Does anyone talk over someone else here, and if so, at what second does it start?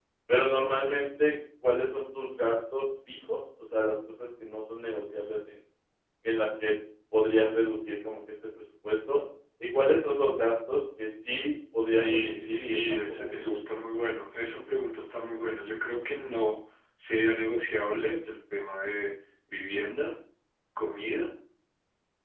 12.0 s

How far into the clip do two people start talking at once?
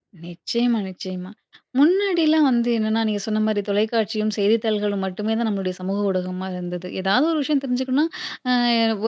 none

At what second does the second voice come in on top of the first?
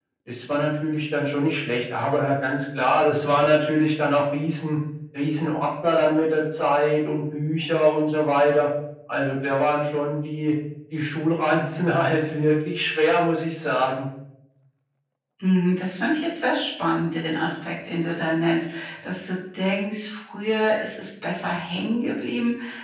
none

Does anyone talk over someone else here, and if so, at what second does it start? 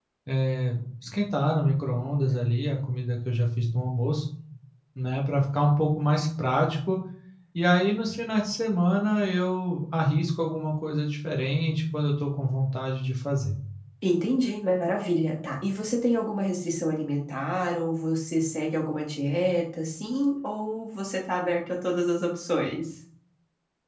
none

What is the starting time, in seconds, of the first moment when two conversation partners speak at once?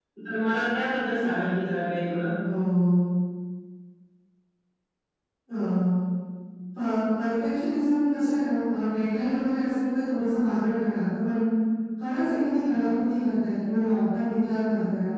none

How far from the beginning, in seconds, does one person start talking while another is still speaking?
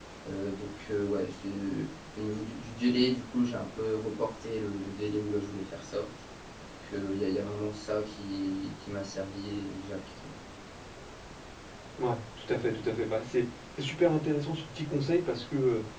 none

